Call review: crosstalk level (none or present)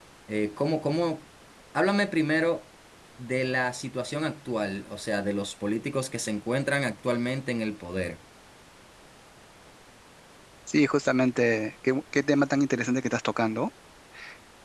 none